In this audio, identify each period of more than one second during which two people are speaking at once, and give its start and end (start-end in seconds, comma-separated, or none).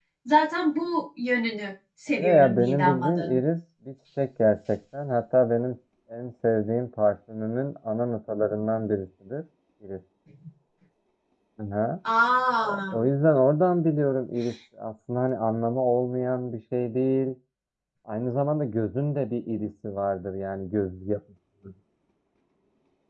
2.2-3.4